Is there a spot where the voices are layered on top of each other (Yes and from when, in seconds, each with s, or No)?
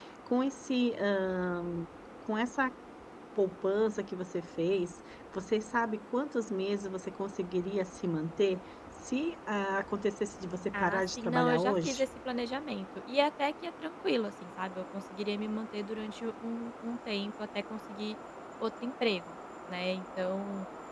Yes, from 10.7 s